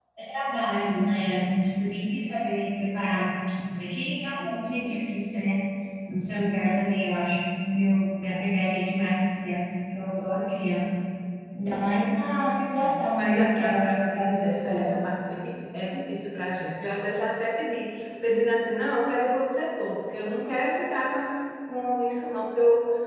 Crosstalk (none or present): present